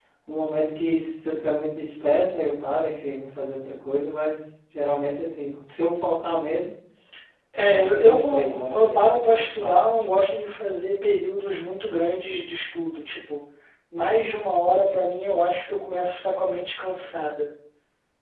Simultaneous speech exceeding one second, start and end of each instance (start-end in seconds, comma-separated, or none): 7.7-9.7